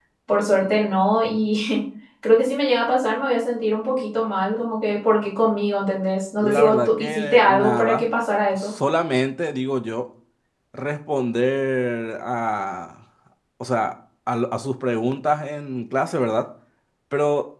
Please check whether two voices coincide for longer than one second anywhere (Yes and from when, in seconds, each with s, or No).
Yes, from 6.4 s